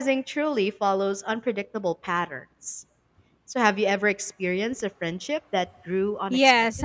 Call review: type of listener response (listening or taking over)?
taking over